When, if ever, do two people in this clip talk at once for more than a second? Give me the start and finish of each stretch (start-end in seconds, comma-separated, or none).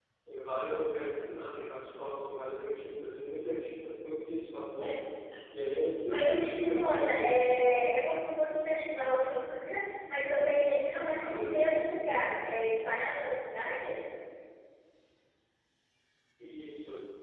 6.1-7.3